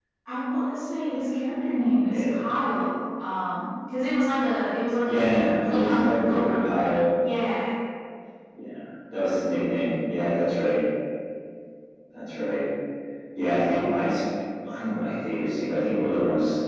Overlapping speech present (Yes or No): Yes